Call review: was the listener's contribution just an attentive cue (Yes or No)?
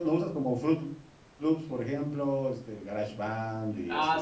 No